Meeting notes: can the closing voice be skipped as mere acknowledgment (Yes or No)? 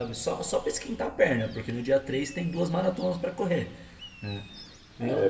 No